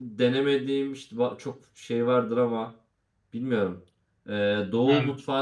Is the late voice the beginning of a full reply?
No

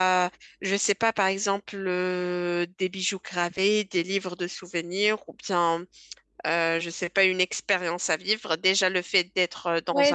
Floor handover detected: Yes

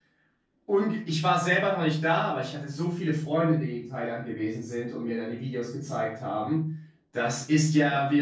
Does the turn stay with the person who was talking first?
Yes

